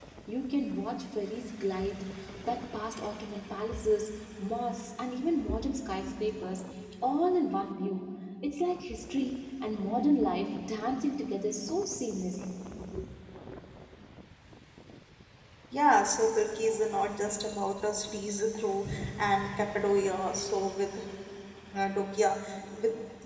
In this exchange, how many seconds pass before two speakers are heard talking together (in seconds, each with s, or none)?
none